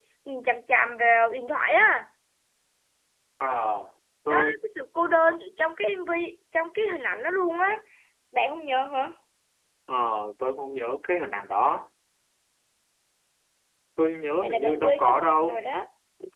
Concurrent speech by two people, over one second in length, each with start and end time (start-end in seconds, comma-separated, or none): 14.4-15.6